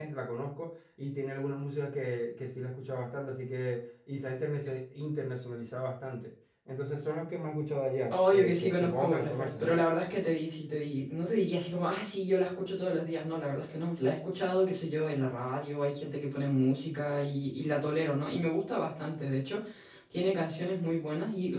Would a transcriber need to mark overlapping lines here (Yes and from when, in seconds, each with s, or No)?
Yes, from 8.1 s